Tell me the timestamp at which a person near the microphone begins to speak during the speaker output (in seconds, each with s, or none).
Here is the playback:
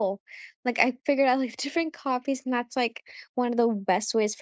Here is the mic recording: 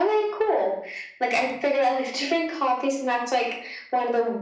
none